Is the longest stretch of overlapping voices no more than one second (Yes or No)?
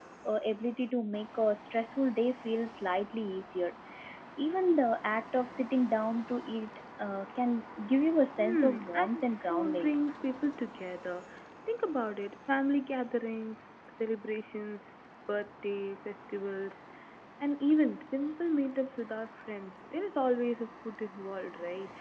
No